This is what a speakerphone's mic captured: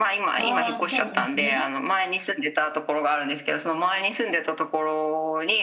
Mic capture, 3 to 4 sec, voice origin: echo only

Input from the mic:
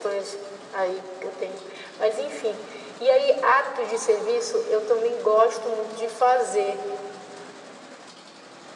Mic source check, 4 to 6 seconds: echo only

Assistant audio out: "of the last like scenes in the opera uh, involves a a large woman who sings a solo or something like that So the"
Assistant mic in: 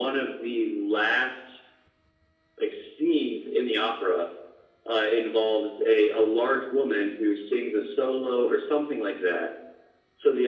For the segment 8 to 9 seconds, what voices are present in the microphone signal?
echo only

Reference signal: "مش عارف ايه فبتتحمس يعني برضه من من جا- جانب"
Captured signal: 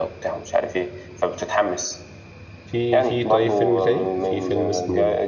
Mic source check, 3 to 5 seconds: both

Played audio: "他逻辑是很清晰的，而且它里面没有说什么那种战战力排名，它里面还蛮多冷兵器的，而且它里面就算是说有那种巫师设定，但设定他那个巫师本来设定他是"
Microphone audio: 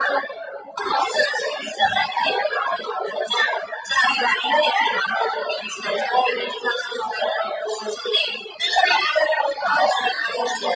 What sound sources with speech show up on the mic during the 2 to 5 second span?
echo only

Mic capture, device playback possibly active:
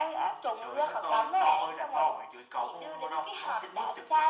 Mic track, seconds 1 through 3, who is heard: echo only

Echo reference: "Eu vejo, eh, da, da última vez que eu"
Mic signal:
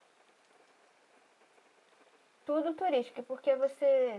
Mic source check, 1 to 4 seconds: user only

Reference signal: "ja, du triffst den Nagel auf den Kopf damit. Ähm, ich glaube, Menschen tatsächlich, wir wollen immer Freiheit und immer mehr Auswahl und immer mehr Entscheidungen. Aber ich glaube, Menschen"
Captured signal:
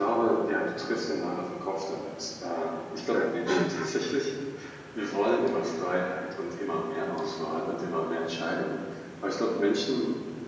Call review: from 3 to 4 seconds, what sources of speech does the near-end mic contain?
both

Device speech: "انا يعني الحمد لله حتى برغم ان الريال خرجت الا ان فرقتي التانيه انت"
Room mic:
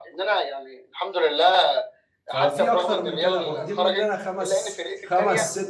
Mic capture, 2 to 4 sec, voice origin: both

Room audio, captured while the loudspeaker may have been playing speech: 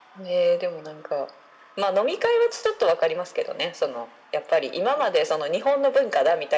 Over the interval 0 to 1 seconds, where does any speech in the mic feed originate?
echo only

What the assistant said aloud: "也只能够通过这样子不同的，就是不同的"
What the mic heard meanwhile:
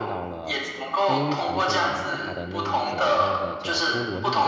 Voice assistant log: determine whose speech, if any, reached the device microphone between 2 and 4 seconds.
both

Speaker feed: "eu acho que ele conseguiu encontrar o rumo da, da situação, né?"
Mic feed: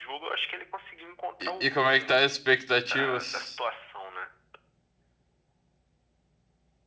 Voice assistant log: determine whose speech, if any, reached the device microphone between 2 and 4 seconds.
both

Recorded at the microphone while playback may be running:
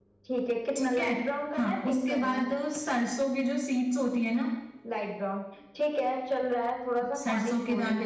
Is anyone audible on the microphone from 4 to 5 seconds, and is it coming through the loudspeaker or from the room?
echo only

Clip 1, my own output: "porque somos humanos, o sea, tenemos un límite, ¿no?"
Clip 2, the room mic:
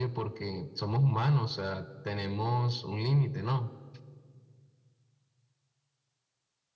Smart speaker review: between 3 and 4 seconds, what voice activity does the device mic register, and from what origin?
echo only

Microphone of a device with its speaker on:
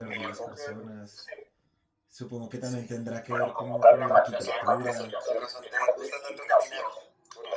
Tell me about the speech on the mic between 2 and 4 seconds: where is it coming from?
both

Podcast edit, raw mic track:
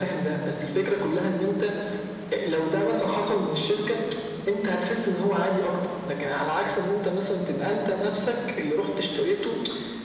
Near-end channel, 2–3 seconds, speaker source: echo only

